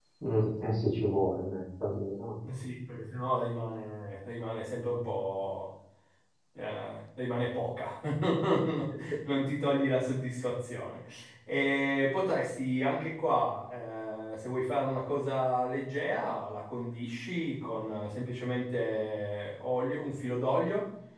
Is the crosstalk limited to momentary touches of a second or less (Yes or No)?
Yes